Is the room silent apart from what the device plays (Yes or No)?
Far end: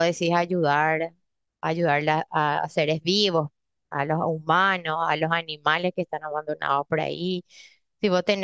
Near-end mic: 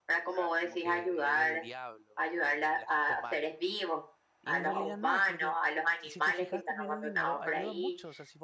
No